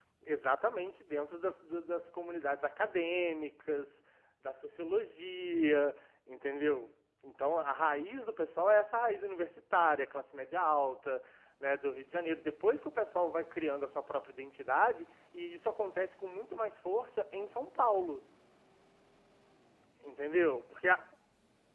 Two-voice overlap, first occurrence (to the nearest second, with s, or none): none